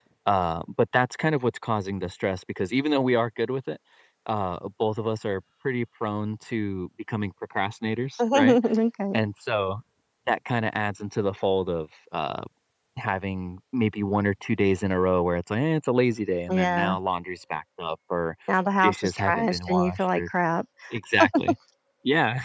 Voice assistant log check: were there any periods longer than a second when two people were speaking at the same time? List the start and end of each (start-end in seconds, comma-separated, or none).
18.8-20.3